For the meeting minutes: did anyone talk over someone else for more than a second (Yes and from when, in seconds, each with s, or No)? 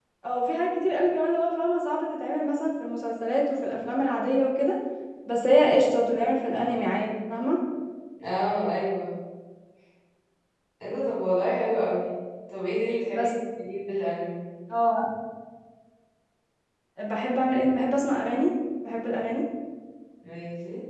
No